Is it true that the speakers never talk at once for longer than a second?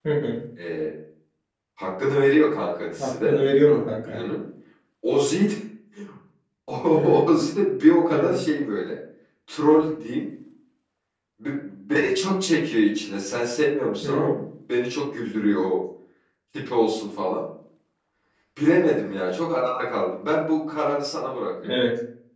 No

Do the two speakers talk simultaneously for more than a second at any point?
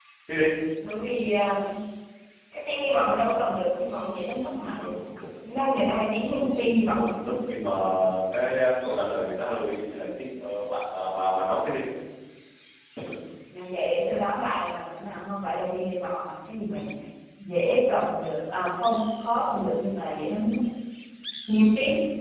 No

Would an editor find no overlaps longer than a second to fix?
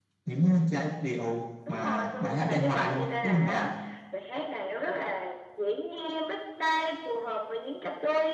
No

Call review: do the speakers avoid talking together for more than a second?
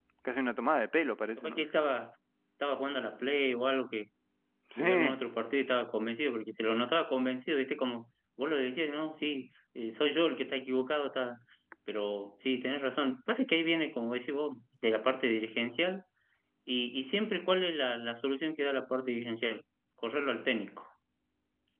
Yes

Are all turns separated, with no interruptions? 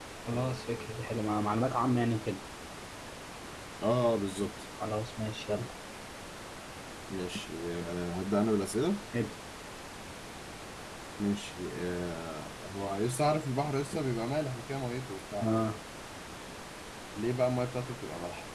Yes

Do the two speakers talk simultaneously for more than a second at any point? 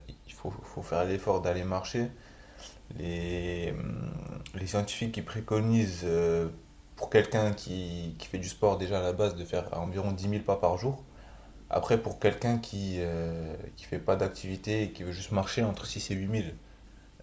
No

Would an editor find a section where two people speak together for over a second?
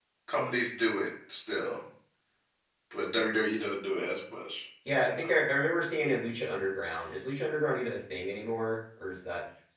No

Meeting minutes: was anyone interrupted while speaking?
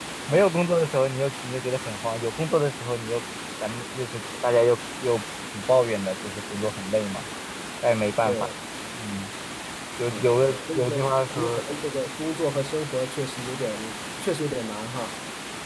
Yes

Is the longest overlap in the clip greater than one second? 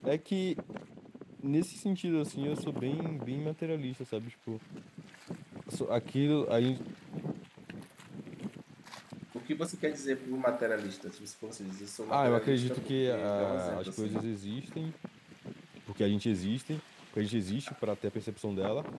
Yes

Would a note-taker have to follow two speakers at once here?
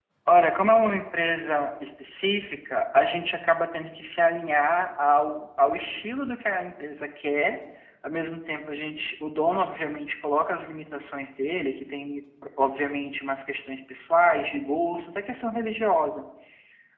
No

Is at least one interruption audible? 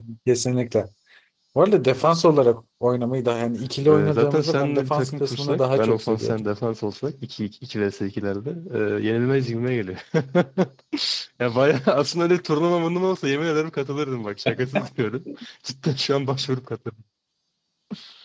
Yes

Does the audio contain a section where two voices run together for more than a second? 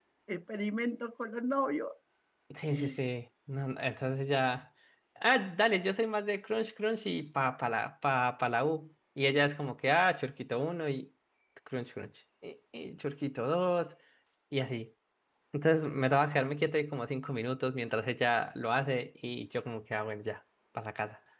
No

